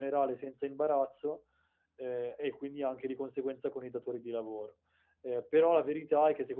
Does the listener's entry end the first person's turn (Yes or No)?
No